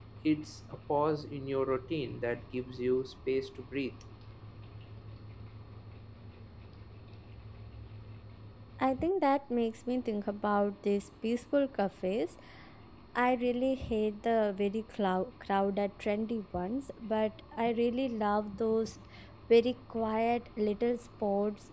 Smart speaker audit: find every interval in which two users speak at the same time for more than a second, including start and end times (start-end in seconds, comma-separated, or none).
none